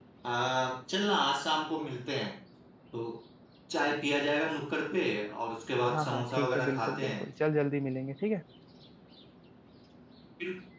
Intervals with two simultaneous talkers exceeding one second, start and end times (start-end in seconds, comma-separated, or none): 5.9-7.2